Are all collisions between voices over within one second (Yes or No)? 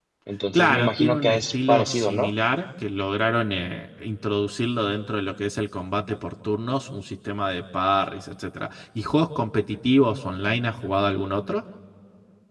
No